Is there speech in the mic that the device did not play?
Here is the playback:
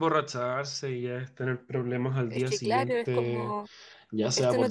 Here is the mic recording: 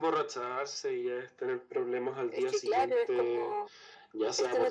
No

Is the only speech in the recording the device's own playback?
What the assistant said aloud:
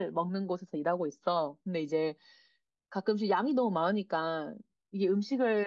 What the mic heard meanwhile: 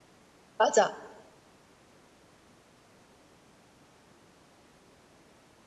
No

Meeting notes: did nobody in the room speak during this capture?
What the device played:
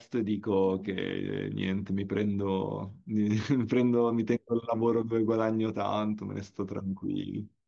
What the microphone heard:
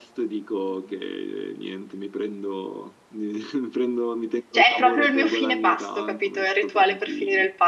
No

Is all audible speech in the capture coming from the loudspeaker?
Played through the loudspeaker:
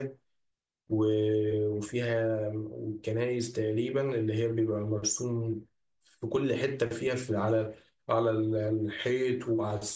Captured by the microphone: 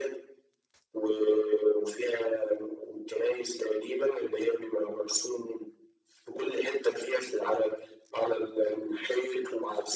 Yes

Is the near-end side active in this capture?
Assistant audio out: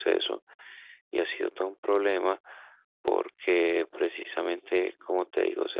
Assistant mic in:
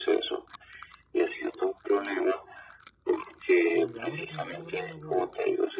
Yes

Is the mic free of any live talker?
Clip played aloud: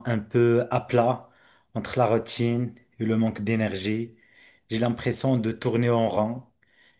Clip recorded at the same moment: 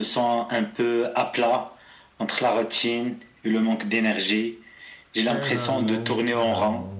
No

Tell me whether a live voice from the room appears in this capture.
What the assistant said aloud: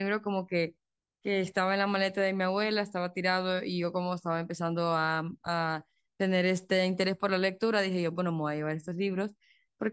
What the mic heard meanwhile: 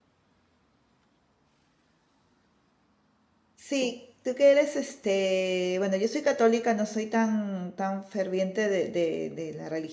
Yes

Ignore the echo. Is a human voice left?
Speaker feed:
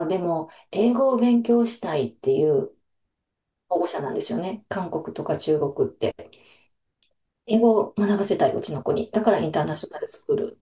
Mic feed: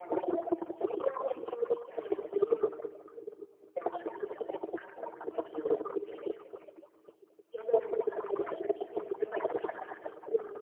No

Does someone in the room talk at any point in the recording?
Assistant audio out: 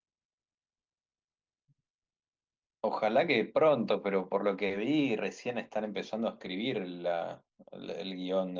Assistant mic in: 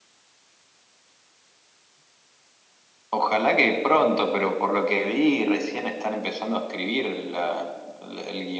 No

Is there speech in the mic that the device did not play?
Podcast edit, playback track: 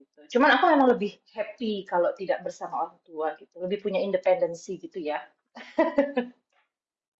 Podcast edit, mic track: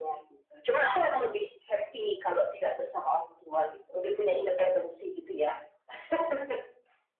No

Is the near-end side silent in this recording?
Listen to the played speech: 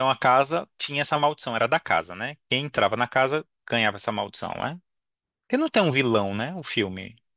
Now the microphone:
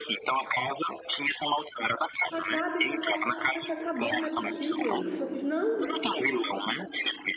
No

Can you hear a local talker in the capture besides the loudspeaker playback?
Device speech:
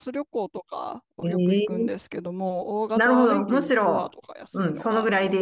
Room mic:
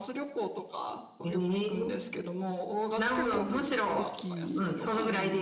Yes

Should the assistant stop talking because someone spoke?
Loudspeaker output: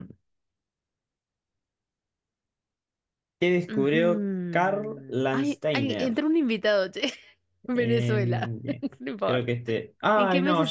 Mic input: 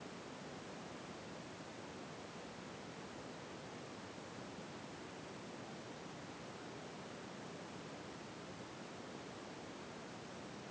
No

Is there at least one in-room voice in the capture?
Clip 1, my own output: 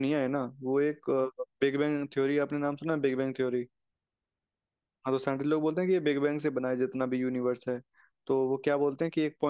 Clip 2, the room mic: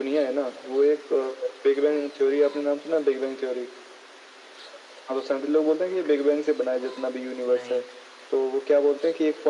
Yes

